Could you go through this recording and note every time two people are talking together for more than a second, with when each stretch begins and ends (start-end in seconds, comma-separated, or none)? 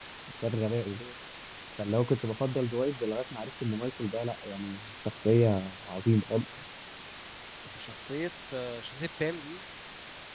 none